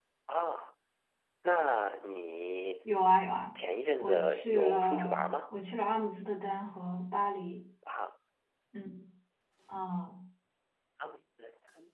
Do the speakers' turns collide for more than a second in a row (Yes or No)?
Yes